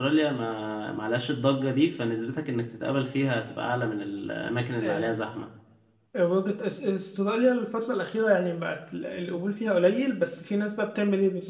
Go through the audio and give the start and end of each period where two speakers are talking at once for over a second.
none

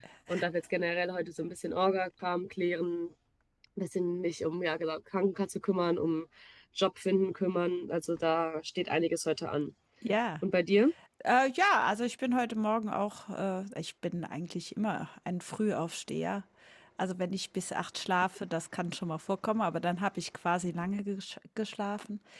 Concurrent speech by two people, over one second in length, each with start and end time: none

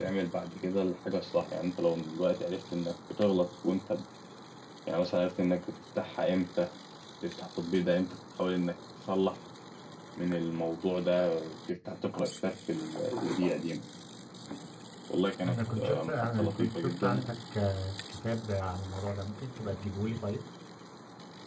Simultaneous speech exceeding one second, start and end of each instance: 15.5-17.2

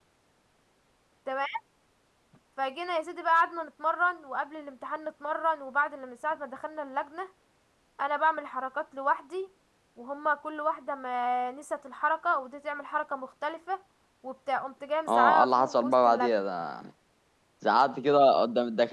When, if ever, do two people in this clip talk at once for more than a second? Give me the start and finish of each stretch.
15.1-16.4

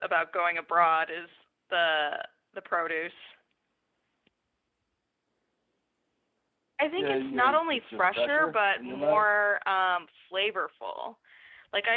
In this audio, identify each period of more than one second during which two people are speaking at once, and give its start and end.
7.0-9.2

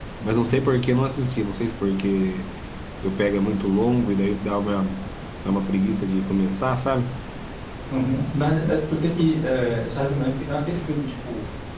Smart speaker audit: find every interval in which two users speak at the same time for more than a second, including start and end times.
none

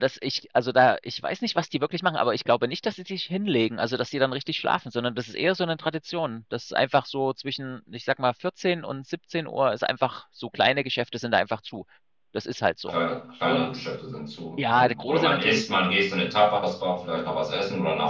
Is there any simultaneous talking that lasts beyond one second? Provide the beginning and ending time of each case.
14.6-15.9

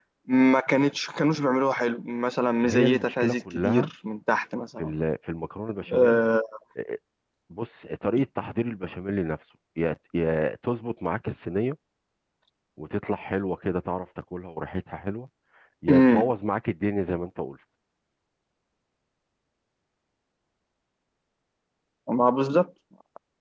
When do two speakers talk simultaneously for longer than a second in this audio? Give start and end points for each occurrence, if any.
2.6-3.9

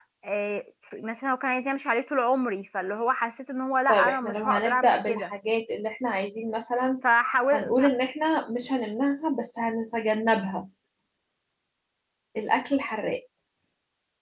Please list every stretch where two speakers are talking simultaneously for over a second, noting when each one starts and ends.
3.9-5.3

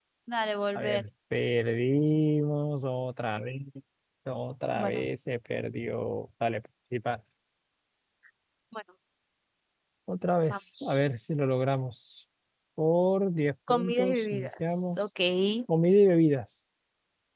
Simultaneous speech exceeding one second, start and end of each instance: 13.7-15.0

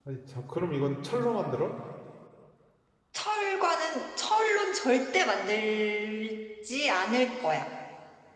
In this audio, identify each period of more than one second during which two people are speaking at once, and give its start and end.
none

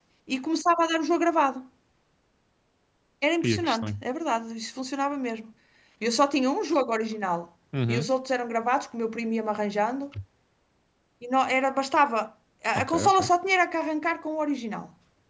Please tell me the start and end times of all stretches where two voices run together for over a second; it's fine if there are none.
none

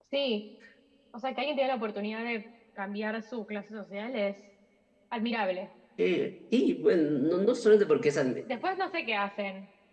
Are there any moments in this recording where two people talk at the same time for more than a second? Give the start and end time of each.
none

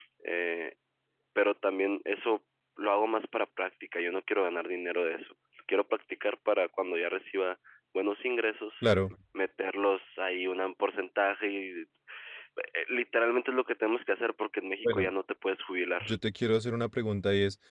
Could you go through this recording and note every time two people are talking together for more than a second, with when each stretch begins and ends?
none

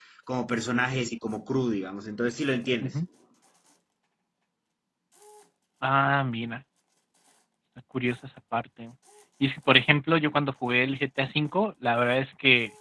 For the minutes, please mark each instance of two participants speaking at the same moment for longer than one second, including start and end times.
none

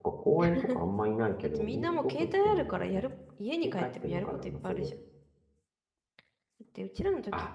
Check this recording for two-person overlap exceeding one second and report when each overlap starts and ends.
1.6-3.1, 3.6-4.9

